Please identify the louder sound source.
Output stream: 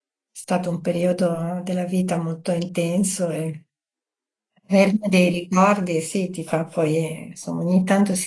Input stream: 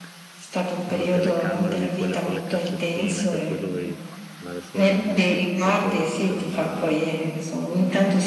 echo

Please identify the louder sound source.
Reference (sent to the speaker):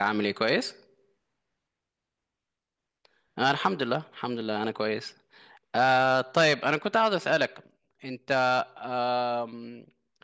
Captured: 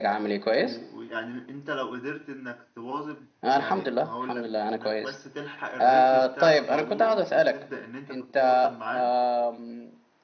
echo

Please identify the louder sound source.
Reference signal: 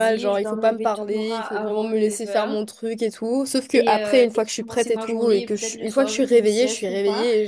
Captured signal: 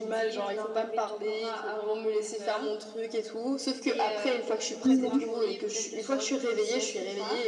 user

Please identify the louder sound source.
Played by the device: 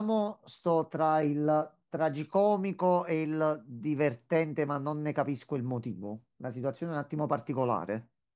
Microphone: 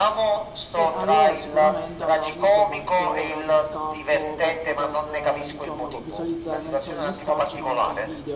echo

